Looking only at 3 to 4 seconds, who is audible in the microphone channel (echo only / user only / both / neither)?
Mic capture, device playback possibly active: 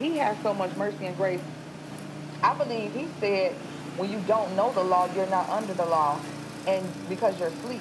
echo only